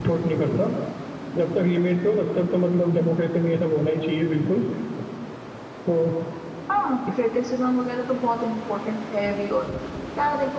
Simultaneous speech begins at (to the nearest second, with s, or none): none